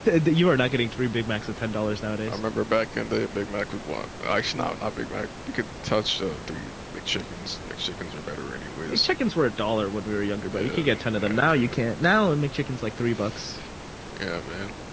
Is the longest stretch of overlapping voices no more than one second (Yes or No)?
No